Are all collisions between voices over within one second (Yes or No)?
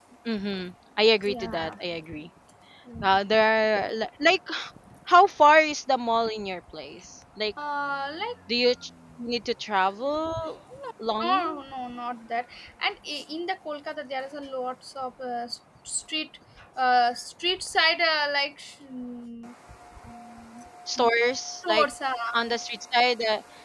Yes